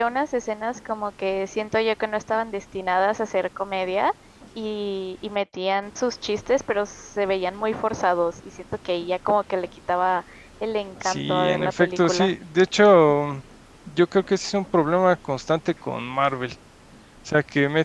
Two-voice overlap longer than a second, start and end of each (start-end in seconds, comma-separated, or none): 11.0-12.3